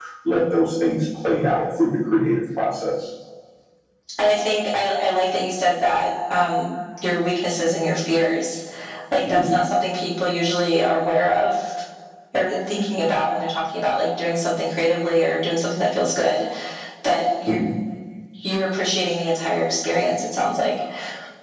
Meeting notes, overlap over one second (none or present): none